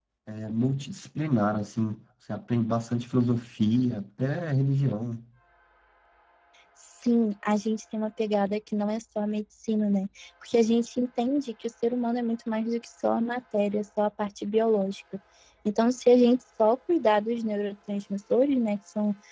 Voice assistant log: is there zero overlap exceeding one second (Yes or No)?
Yes